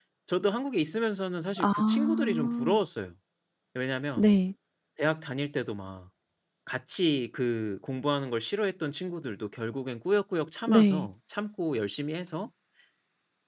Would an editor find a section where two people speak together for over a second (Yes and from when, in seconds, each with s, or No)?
Yes, from 1.6 s